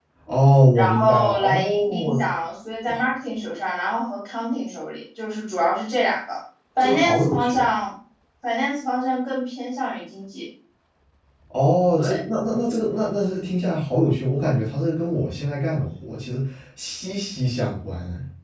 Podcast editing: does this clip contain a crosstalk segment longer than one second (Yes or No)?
Yes